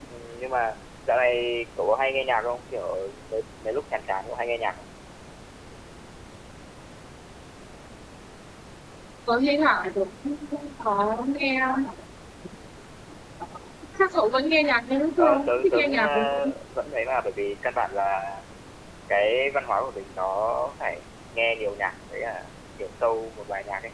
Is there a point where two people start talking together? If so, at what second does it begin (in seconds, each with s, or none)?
15.2 s